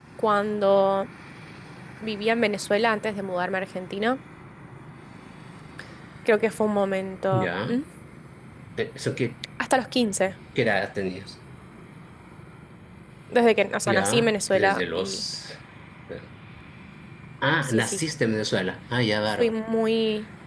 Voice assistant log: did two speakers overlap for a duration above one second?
Yes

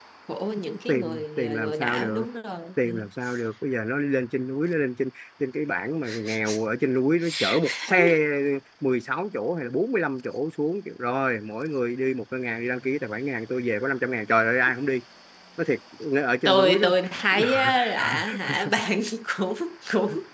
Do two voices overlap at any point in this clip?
Yes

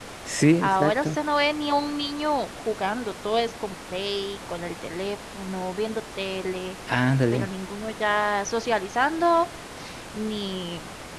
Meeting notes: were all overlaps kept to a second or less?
Yes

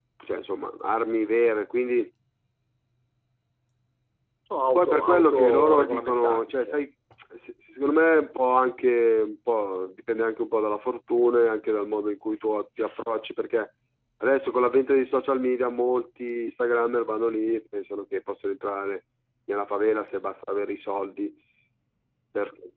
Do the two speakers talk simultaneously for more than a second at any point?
Yes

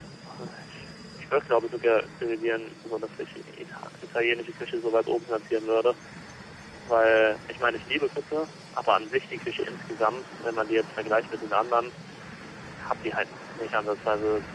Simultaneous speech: No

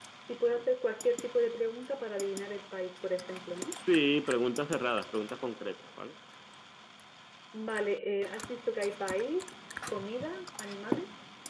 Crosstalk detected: No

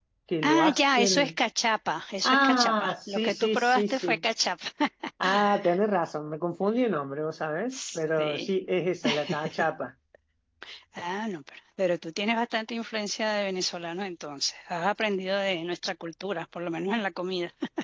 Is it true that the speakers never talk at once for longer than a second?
No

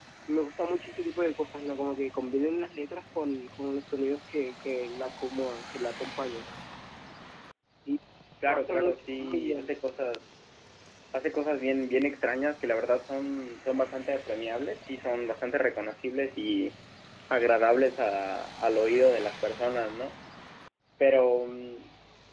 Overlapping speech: Yes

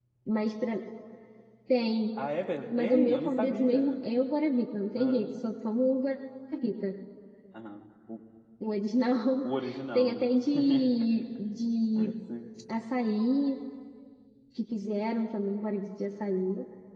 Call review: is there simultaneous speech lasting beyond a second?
Yes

